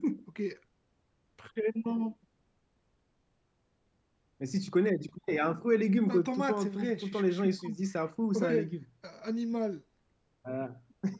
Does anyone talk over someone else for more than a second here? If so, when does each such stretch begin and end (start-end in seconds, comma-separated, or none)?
6.1-7.8